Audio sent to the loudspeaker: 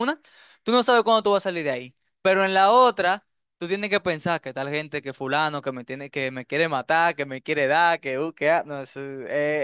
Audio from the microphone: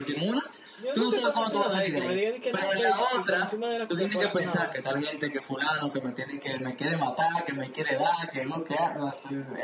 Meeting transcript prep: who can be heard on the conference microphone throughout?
both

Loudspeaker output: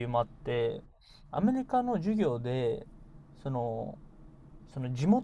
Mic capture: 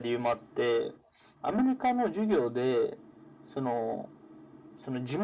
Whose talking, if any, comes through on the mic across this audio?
echo only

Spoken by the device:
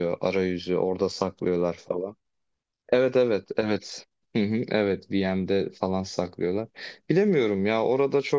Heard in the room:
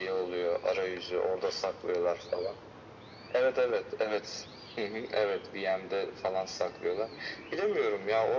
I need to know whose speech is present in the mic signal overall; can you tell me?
echo only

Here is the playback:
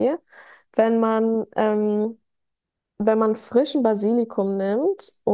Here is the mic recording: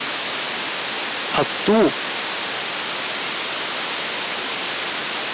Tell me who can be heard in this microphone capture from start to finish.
user only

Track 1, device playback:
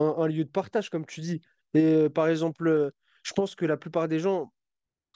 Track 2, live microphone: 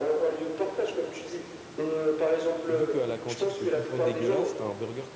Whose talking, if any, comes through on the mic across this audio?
both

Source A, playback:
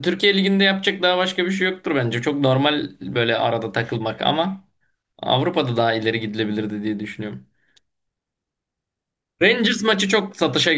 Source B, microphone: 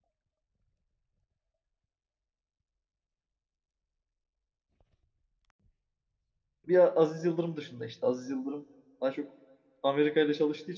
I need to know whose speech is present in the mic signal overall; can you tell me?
user only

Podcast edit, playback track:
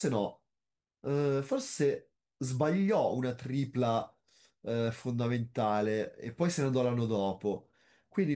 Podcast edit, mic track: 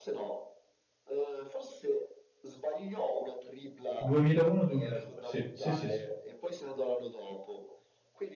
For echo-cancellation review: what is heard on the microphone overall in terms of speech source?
both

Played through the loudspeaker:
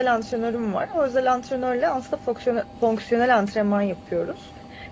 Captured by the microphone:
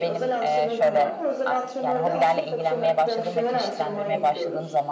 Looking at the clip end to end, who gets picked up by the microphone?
both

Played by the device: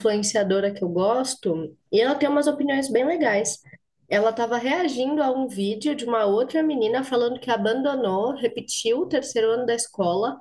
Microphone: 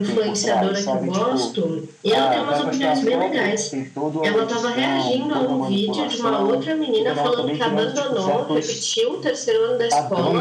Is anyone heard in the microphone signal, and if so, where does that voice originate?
both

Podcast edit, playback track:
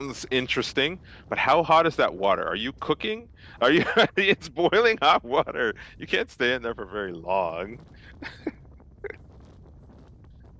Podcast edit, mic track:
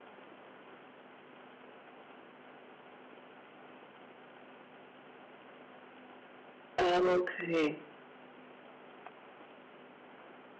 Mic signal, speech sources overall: user only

